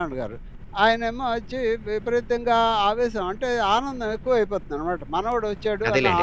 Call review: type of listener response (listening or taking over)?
listening